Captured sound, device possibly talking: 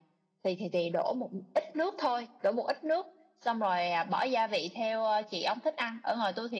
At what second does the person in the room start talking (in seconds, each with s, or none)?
none